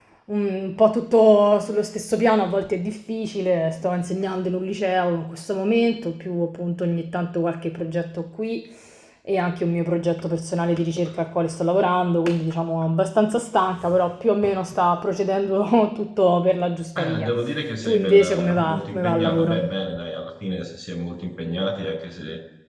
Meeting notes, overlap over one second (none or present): present